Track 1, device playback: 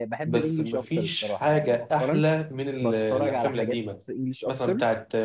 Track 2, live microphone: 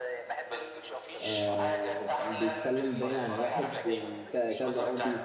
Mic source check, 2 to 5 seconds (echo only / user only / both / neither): both